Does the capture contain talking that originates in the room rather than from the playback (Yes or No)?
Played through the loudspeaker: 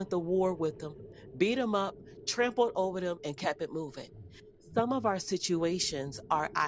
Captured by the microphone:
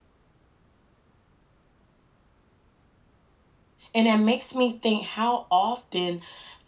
Yes